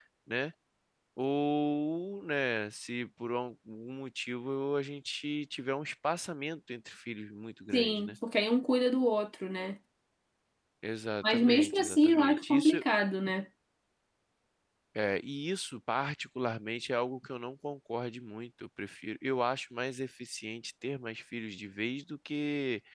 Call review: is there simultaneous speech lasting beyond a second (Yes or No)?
Yes